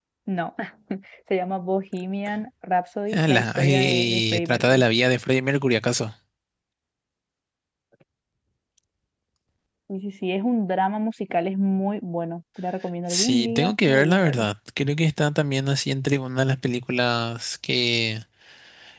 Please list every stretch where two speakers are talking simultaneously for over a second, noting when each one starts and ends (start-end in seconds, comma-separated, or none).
3.1-4.8, 13.1-14.4